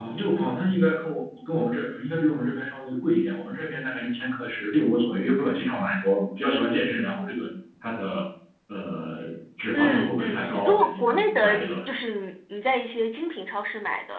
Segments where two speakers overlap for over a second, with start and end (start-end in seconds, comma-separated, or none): 9.7-11.7